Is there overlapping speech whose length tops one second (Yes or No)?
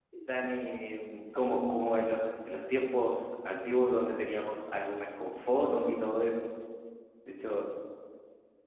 No